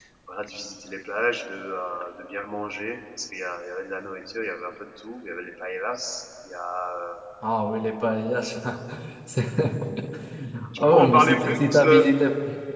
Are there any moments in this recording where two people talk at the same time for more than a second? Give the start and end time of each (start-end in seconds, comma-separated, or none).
10.8-12.0